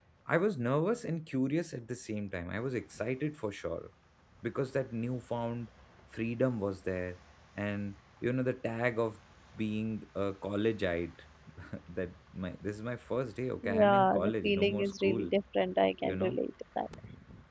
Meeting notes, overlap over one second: present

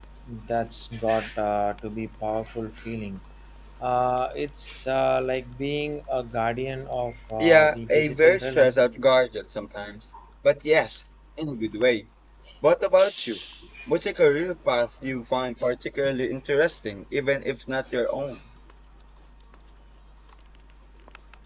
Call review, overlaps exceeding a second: present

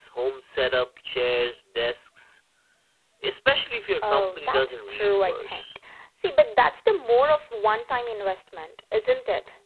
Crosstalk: present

